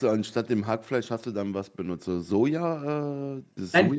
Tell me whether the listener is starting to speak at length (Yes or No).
Yes